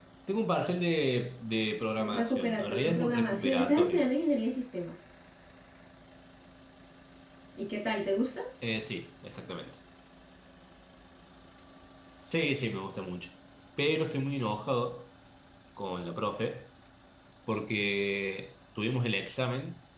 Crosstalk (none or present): present